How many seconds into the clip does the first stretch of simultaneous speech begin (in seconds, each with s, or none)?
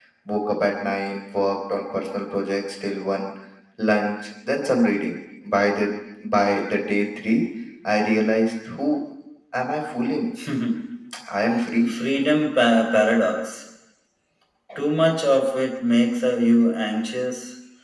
none